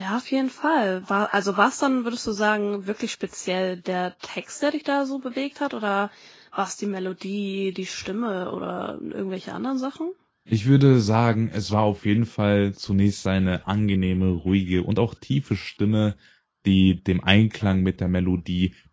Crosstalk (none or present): none